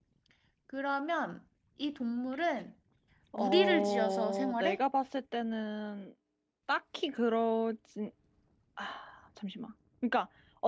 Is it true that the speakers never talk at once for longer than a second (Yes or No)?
No